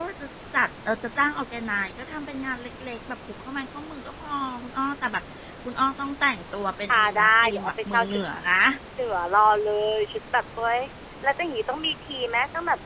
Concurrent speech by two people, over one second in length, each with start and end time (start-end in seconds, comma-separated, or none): 6.9-8.2